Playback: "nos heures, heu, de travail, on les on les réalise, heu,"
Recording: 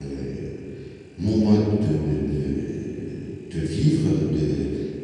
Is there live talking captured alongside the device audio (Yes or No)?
Yes